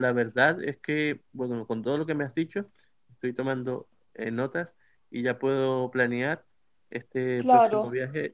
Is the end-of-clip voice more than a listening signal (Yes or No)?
No